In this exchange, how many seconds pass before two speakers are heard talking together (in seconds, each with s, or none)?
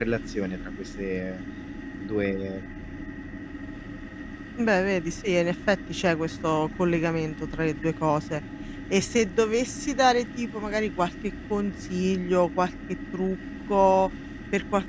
none